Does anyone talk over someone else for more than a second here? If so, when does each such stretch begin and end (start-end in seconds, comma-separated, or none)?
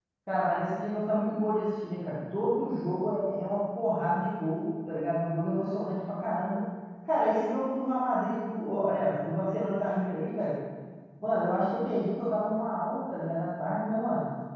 none